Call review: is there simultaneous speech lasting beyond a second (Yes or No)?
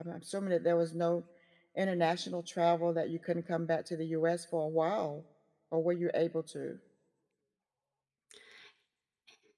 No